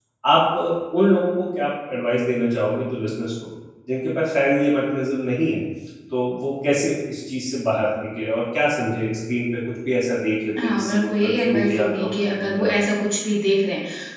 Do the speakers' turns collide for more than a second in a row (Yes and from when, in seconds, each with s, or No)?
Yes, from 10.6 s